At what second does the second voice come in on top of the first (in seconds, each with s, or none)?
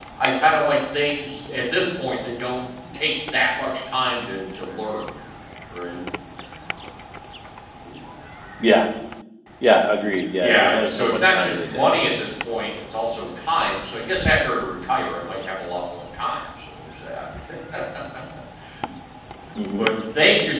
10.4 s